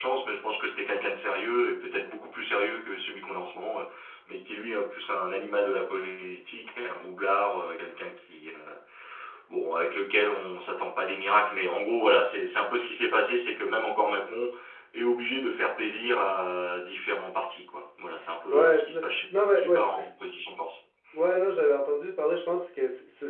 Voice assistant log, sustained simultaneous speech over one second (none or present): present